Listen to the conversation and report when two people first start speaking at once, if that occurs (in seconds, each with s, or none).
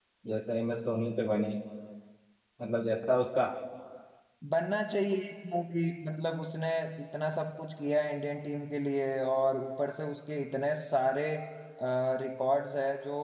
none